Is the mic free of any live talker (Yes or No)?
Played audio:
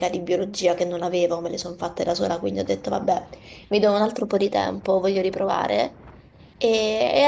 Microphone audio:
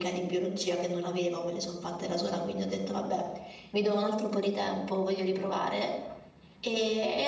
Yes